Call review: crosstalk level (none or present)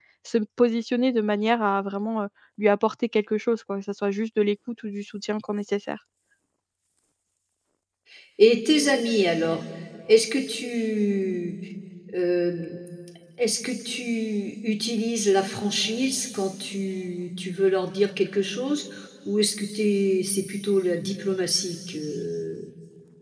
none